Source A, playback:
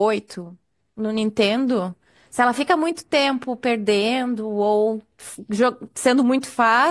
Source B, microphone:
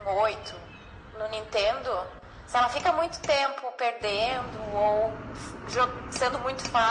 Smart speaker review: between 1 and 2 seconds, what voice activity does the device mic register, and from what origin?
echo only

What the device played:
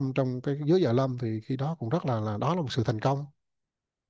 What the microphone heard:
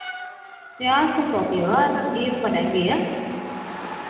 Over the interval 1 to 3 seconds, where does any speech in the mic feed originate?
user only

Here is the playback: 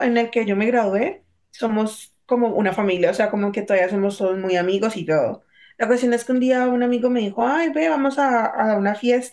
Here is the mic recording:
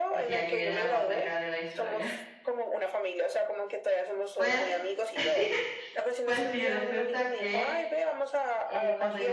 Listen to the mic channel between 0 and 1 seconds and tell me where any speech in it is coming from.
both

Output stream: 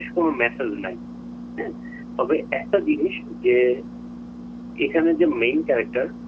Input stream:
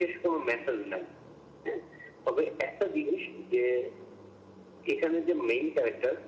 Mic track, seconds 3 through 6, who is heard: echo only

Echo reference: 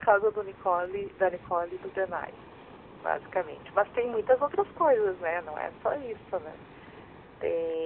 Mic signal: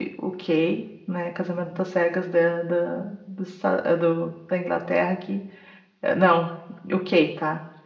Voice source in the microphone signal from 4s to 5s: user only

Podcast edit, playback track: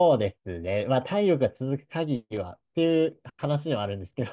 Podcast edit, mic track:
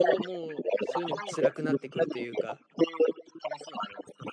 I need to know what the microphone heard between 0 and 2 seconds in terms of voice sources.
both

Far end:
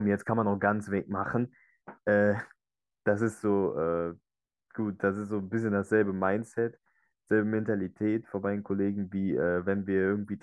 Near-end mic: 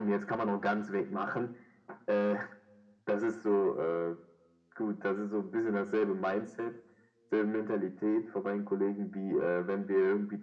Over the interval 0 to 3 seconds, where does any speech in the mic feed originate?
echo only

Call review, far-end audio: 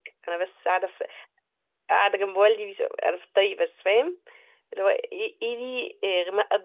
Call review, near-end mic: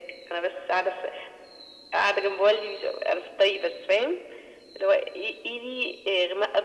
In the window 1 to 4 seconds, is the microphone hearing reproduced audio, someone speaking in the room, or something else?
echo only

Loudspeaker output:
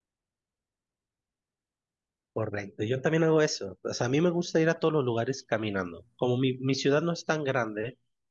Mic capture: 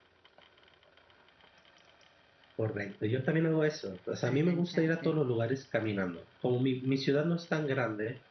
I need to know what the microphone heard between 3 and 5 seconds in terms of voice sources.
both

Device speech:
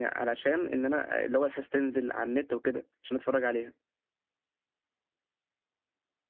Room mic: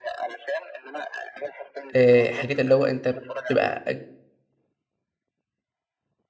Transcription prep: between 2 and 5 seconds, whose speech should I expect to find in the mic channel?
both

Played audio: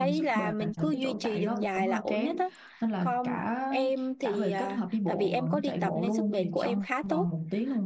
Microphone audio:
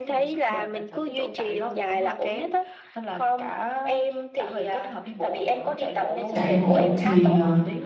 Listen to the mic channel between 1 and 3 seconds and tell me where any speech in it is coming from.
echo only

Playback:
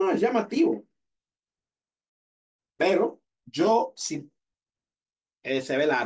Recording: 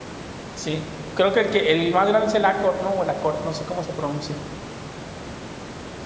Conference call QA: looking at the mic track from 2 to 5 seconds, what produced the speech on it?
user only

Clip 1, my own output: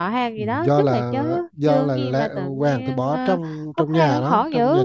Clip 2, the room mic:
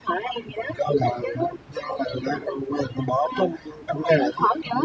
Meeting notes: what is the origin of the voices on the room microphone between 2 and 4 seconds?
echo only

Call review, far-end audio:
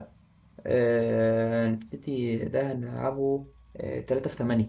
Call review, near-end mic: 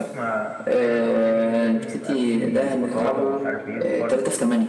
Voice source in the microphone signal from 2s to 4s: both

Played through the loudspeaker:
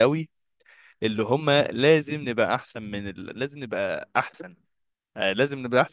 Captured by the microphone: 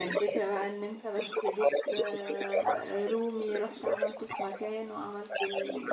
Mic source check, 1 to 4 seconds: both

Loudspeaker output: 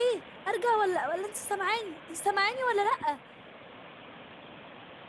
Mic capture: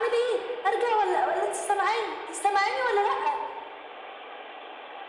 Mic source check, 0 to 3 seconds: echo only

